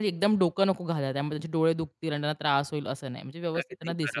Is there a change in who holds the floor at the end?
Yes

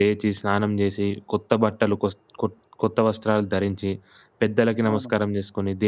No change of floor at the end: Yes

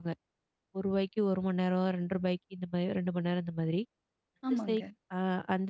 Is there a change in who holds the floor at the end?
No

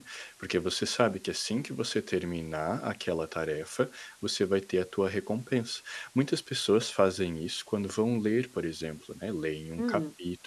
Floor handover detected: No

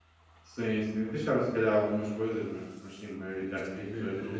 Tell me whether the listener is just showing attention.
No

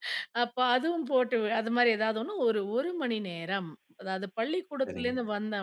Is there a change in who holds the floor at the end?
No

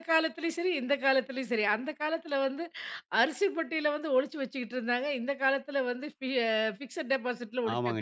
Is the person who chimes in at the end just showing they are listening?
No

